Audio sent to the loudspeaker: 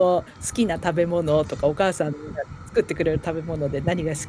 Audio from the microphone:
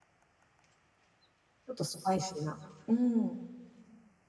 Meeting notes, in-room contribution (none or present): present